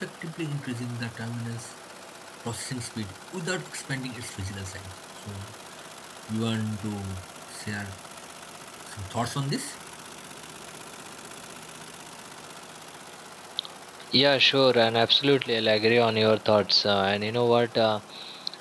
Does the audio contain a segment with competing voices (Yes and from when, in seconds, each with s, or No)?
No